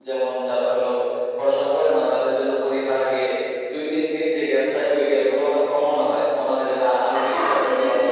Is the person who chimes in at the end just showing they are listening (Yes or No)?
No